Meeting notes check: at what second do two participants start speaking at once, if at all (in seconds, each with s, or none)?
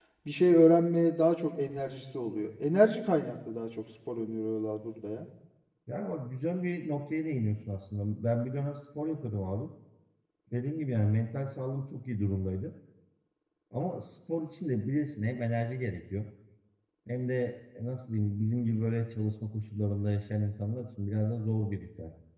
none